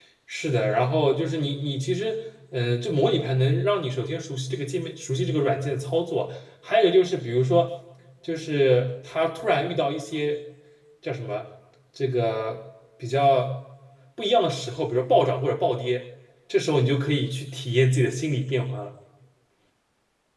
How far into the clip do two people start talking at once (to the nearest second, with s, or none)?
none